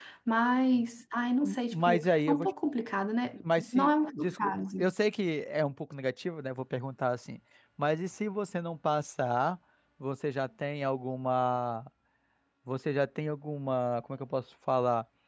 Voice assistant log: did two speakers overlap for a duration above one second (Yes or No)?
Yes